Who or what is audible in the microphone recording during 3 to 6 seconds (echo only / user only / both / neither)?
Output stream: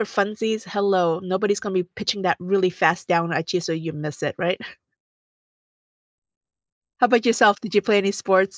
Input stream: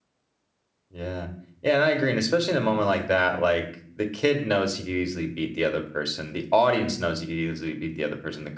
user only